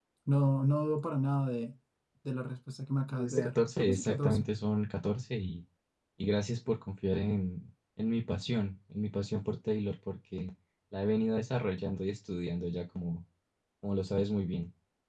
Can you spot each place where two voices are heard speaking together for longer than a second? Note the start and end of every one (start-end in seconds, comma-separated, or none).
3.2-4.4